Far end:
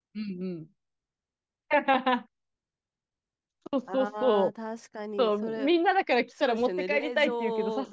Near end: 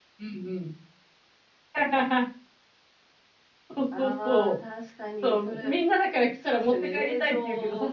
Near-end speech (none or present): none